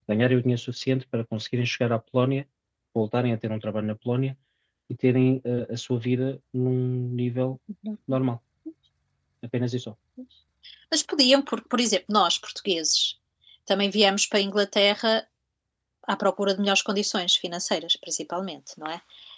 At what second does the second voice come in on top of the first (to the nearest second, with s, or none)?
none